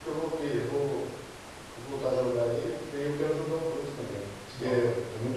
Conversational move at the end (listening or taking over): listening